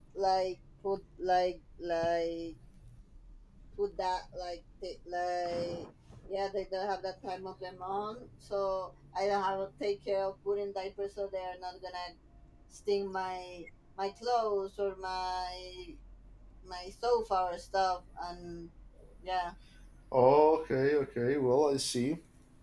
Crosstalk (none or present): none